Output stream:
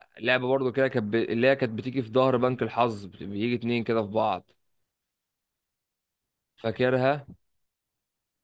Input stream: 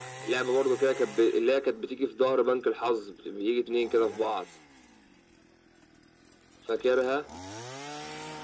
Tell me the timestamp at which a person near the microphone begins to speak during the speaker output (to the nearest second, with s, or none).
none